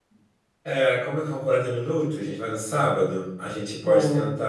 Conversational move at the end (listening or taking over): listening